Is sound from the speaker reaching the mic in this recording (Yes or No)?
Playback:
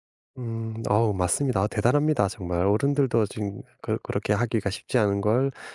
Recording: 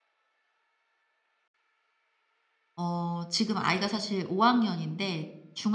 No